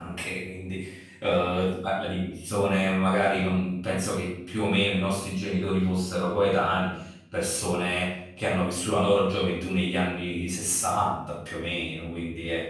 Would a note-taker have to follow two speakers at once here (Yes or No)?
No